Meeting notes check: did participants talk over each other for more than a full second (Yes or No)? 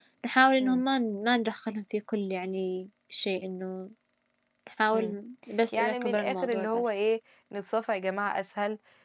Yes